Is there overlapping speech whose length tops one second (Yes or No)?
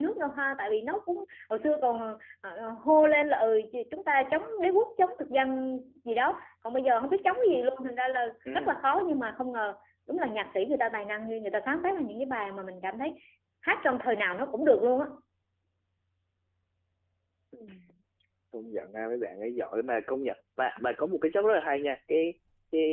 No